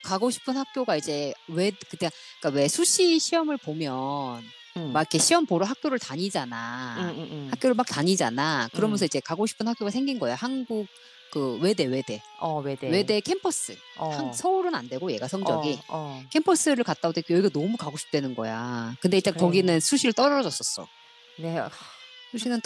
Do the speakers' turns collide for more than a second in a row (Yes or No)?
No